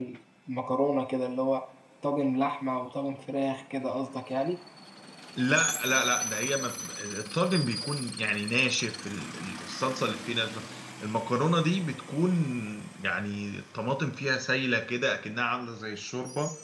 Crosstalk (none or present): none